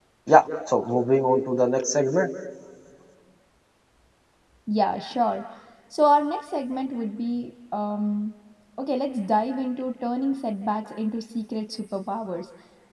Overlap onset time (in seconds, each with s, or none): none